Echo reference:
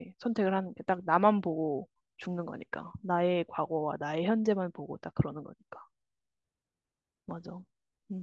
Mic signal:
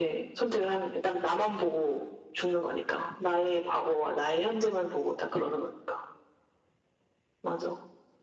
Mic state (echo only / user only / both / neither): echo only